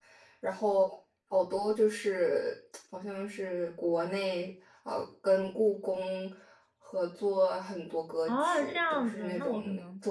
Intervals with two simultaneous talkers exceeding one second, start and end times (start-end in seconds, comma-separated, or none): 8.3-9.6